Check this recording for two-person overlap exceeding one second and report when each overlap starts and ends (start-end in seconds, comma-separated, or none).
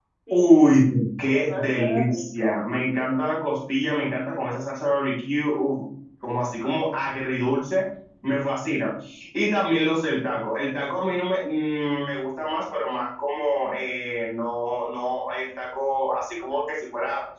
1.3-2.6